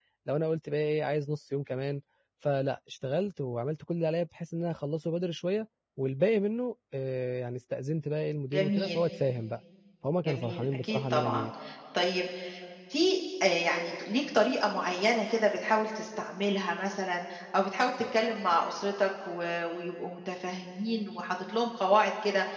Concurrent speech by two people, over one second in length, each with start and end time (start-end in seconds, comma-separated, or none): 10.2-11.4